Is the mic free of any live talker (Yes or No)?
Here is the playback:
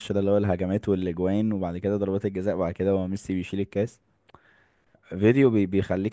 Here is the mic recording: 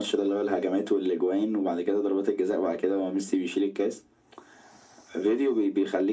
Yes